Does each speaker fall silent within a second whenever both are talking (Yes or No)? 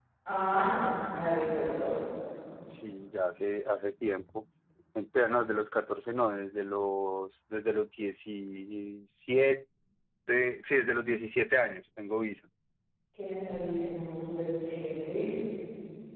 Yes